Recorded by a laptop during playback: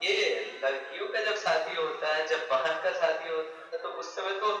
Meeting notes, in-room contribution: none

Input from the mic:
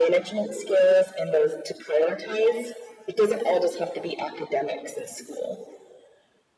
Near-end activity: none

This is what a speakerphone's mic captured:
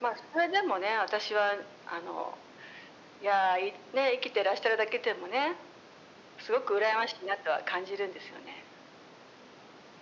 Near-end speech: none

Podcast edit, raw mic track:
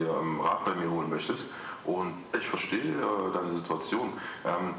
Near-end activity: none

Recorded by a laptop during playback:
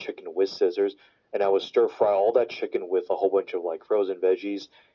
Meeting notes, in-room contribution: none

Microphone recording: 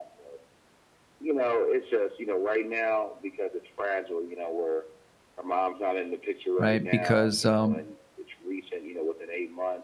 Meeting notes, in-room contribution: present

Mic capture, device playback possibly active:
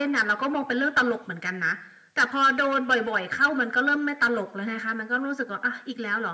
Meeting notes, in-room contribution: none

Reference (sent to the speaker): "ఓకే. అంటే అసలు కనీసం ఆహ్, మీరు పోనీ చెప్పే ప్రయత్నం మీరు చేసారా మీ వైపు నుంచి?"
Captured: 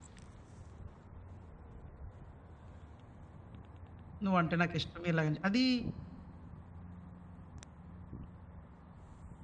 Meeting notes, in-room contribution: present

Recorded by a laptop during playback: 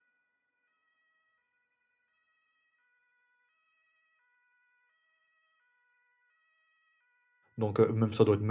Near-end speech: present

